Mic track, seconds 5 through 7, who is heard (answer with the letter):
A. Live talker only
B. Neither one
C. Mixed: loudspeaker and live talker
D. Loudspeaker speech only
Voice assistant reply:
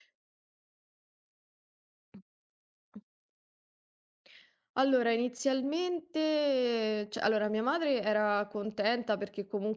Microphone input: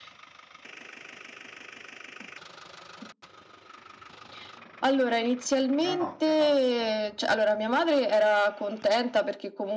C